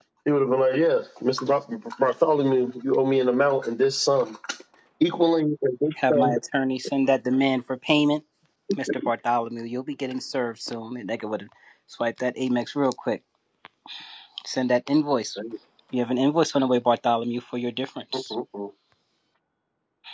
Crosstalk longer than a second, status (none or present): none